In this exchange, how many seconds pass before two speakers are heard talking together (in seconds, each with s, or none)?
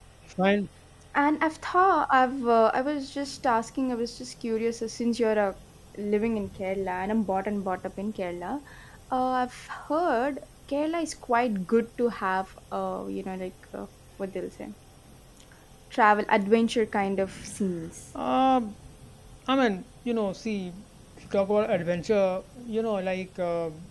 none